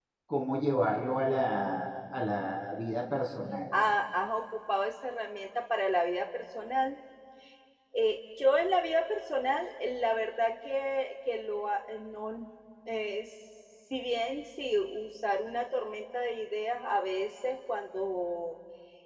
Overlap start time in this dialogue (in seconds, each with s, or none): none